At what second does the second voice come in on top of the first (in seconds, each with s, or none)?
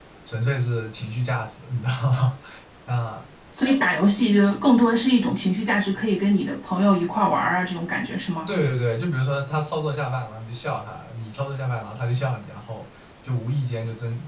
none